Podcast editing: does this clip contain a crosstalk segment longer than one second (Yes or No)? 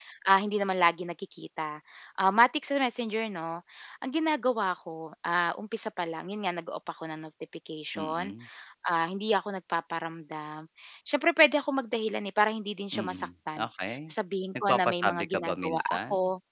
Yes